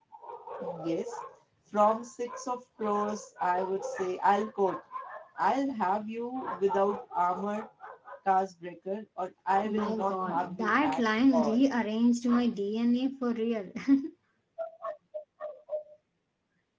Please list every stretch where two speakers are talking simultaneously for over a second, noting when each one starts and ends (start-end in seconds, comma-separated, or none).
9.6-11.6